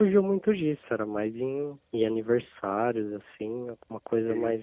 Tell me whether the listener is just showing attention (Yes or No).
Yes